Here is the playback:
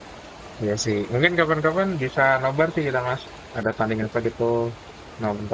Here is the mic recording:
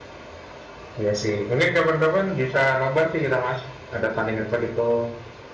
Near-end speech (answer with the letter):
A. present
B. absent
B